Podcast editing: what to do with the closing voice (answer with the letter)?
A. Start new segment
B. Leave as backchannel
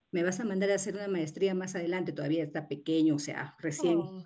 B